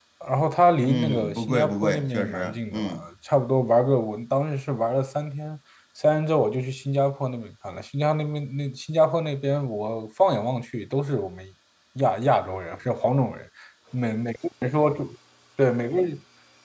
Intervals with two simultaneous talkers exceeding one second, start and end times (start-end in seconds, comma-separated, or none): 0.9-3.0